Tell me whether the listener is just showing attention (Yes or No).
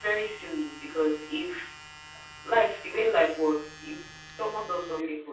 Yes